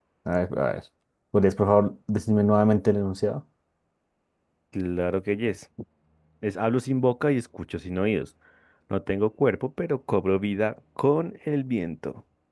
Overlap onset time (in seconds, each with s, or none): none